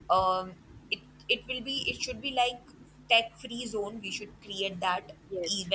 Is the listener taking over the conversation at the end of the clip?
No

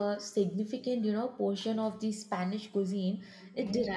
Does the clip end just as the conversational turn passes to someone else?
No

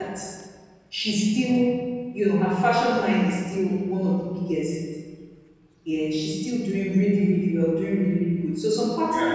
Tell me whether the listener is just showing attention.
Yes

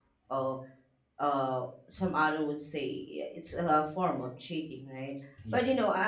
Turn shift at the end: No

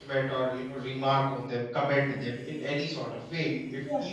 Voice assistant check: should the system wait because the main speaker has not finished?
Yes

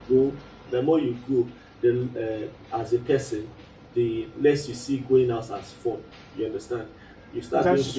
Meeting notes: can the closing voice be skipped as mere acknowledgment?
Yes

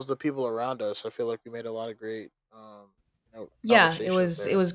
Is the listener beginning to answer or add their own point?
Yes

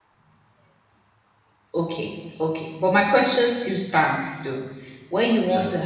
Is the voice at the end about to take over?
No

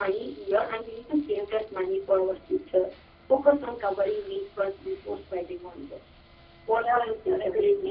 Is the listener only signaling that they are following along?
No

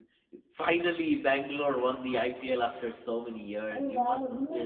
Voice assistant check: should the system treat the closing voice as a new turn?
Yes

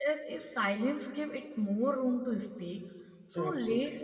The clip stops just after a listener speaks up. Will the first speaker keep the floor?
Yes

